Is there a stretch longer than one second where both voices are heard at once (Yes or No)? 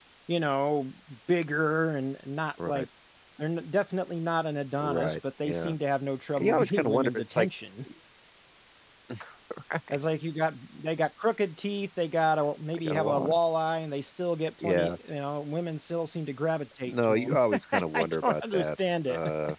Yes